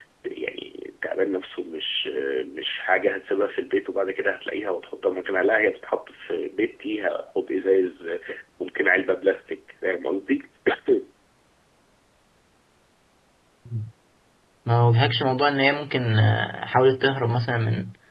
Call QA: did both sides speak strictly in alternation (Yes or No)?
Yes